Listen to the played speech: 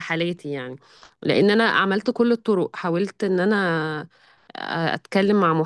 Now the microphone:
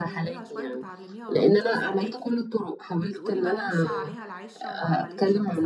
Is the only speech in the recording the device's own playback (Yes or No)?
No